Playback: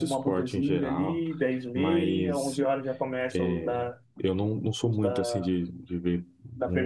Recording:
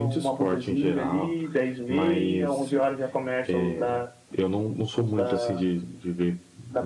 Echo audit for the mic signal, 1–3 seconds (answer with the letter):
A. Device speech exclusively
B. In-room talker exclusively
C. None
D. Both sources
A